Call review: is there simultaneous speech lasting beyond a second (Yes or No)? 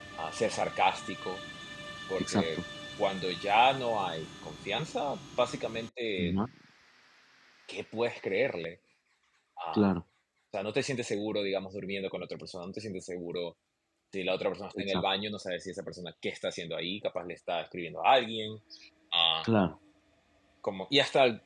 No